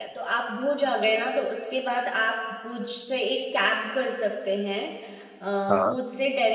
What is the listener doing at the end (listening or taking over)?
listening